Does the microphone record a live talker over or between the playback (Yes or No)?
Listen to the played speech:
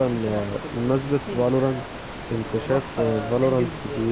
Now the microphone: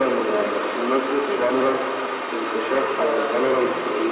No